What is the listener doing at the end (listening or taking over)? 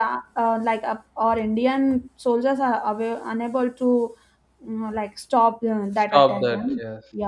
taking over